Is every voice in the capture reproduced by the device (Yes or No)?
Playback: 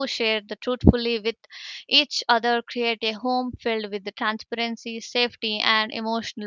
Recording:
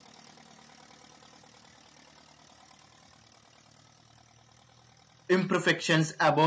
No